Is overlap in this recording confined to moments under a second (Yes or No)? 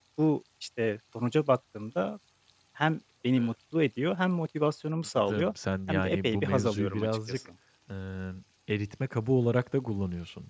No